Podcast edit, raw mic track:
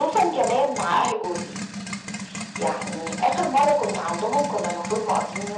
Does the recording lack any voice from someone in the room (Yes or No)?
Yes